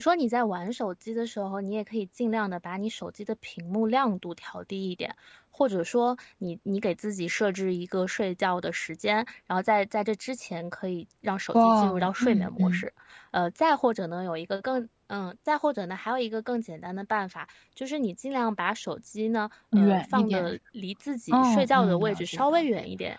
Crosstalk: present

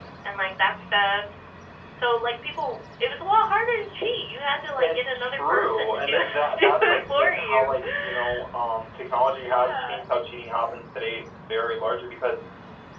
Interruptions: present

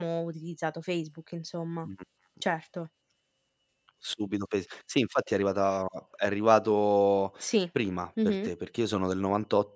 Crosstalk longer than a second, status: none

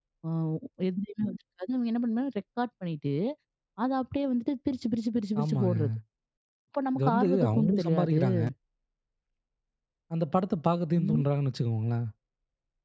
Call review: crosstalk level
present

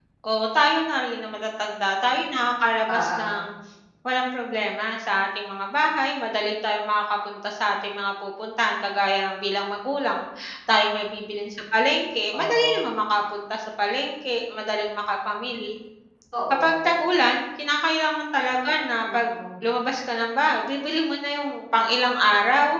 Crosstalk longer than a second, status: none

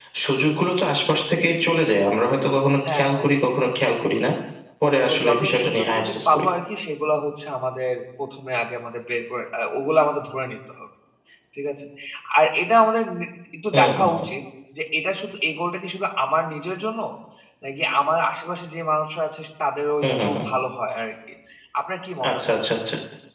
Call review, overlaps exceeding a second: present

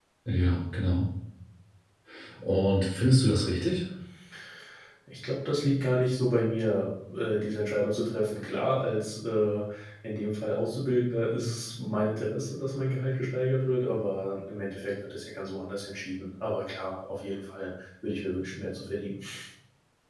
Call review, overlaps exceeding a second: none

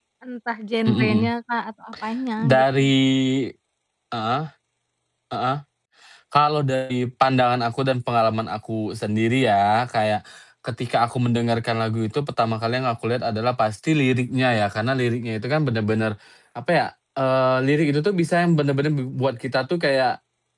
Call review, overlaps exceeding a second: none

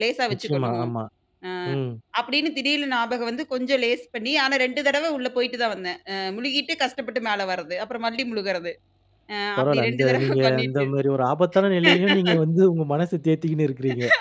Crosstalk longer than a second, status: present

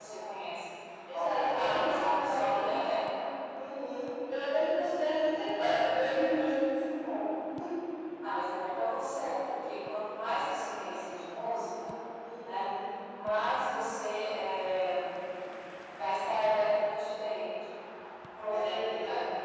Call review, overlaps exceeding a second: present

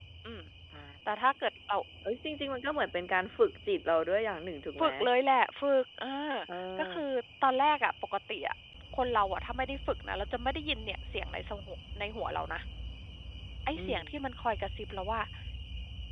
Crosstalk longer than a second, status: none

